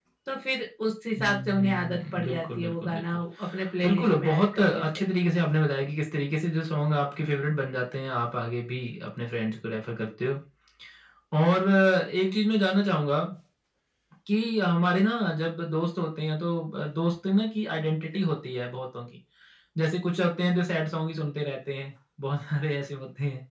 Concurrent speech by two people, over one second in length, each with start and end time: 1.2-3.2, 3.8-5.1

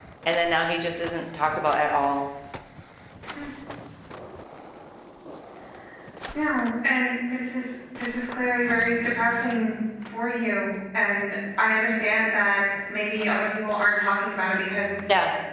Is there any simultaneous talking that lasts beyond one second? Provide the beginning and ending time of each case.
none

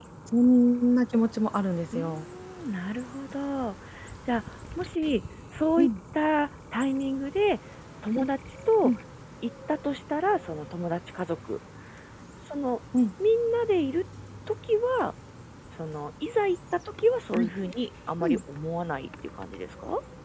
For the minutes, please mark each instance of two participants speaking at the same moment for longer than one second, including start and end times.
none

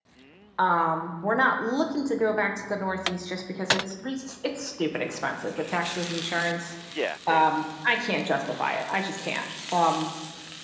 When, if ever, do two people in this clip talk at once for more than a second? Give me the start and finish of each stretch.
none

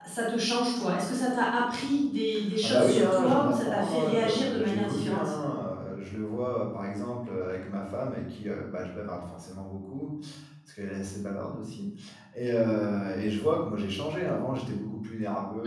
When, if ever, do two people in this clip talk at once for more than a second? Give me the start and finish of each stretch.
2.6-5.3

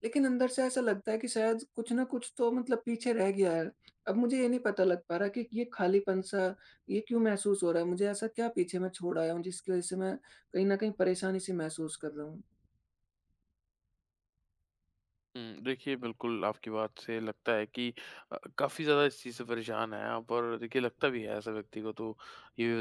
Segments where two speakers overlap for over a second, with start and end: none

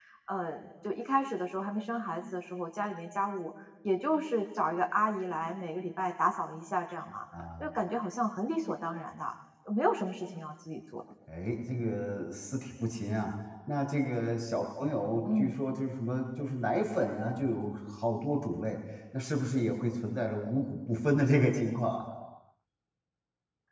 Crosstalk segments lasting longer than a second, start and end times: none

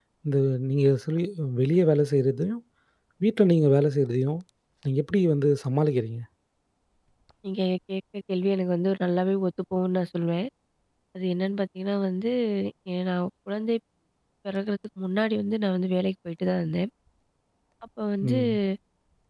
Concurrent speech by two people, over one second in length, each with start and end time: none

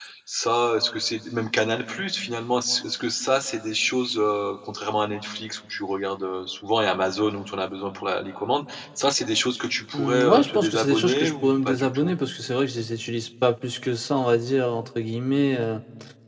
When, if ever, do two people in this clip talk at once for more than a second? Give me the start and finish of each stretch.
9.9-12.1

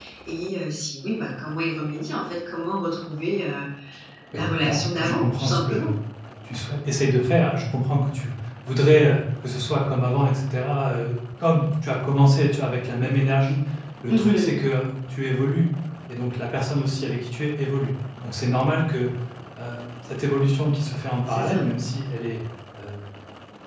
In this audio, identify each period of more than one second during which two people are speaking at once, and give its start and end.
4.3-5.9

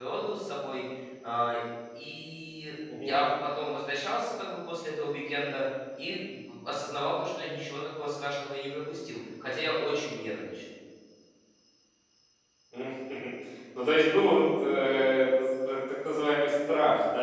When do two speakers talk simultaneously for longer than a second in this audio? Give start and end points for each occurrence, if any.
none

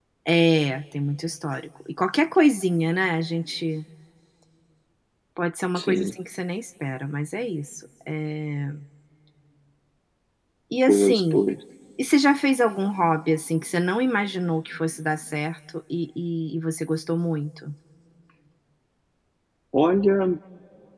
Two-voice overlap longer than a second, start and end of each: none

